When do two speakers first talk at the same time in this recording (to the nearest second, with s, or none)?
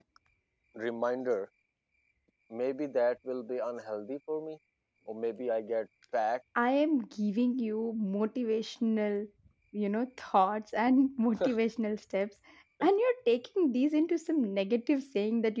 none